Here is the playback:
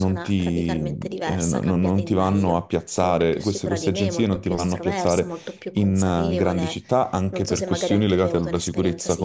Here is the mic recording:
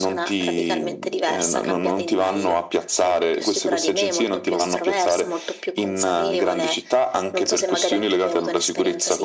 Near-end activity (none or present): none